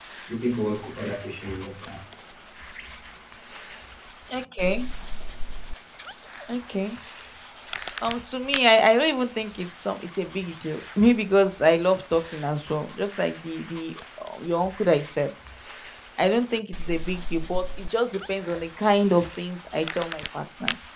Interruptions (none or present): none